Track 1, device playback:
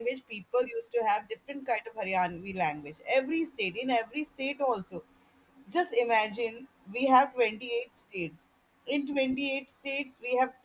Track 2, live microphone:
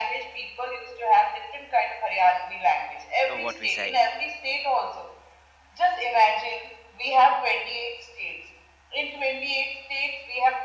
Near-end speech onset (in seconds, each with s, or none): 3.3 s